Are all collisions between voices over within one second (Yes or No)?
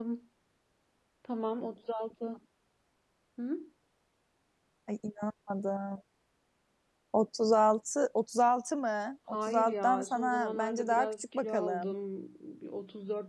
No